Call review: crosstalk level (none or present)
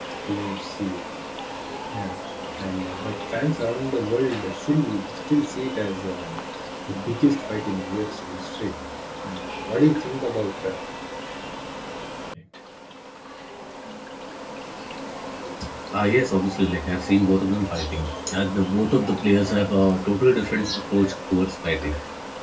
none